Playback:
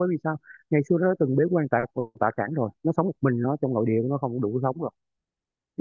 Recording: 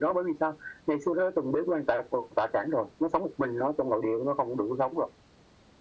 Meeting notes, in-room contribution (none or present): none